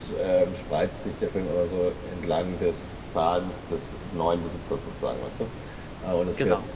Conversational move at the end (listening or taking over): listening